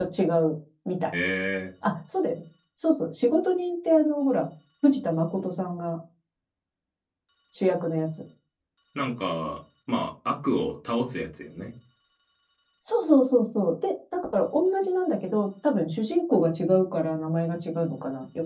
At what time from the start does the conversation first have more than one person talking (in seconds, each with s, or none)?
none